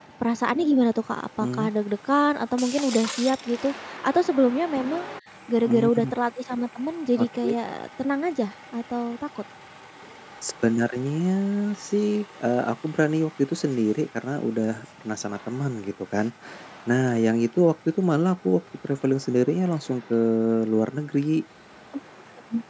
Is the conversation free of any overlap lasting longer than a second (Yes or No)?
Yes